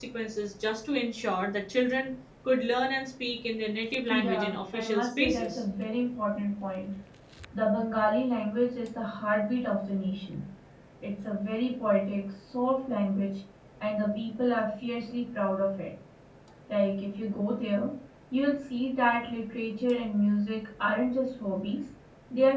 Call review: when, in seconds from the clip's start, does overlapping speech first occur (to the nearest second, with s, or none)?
4 s